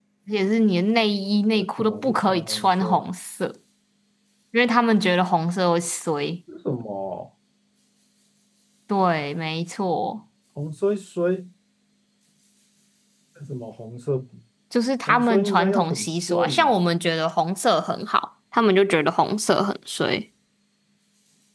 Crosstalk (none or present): present